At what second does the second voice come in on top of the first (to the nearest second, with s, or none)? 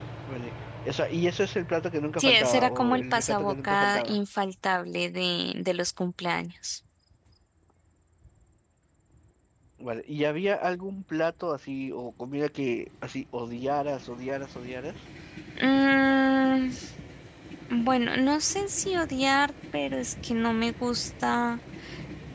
2 s